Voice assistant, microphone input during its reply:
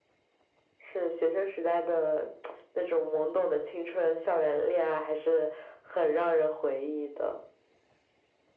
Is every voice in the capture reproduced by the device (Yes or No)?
Yes